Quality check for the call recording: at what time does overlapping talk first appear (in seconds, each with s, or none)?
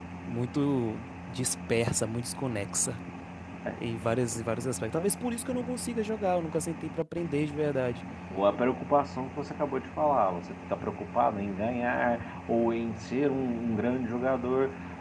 none